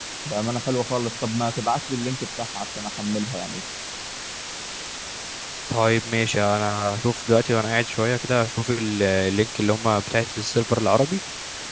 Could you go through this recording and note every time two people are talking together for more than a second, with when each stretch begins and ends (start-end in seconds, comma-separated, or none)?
none